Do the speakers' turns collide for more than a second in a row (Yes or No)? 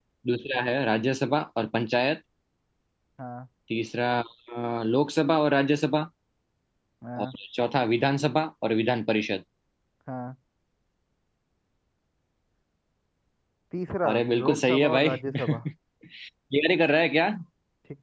Yes